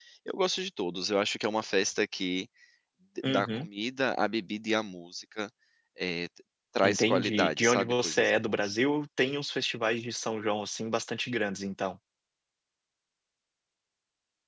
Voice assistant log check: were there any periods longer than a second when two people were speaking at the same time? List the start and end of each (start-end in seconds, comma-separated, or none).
6.8-8.7